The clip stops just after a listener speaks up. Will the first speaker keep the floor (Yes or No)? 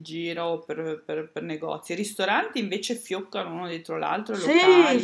No